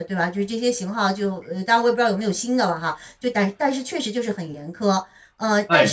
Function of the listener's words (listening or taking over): listening